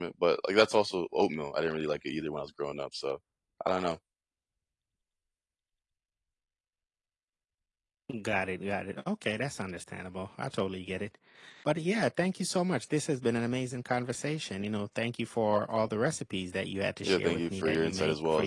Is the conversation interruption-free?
No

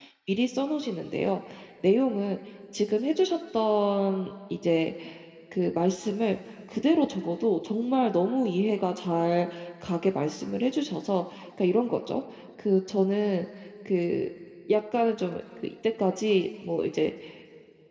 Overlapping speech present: No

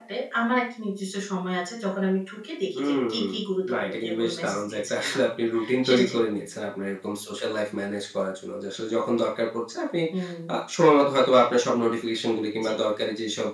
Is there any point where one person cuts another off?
Yes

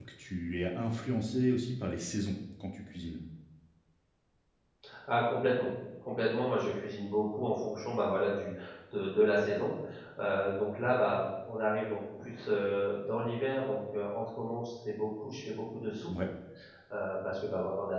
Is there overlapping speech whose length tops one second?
No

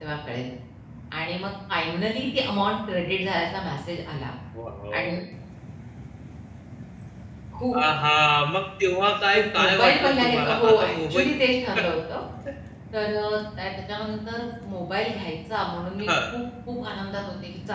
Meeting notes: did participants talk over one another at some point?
Yes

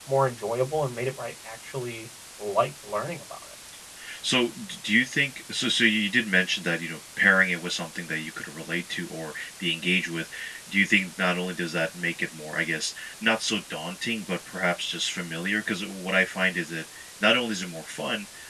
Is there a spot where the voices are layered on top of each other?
No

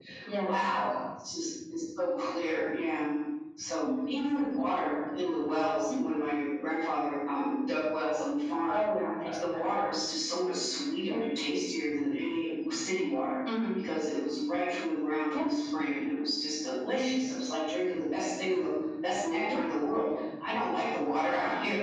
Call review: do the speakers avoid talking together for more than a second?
Yes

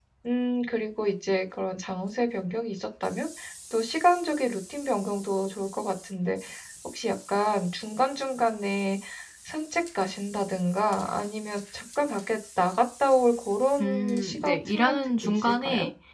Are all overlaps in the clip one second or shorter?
No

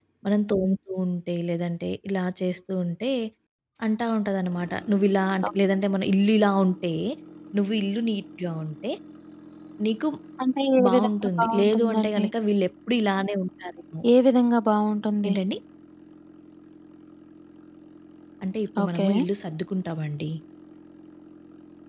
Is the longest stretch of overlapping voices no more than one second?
No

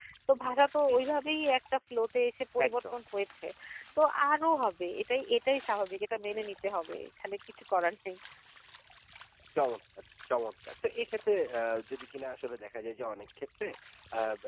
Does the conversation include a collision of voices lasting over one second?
No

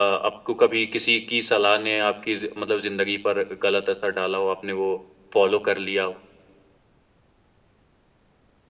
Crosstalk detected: No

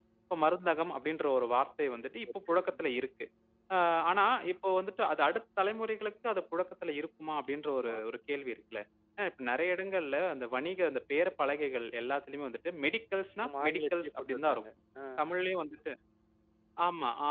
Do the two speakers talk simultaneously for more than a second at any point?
Yes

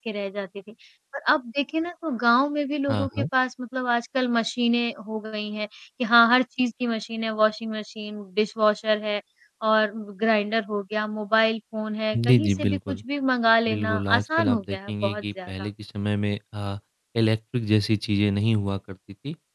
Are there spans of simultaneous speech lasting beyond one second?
Yes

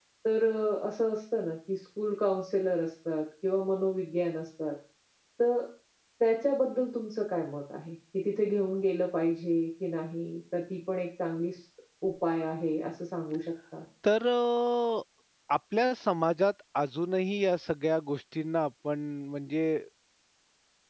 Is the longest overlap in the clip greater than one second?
No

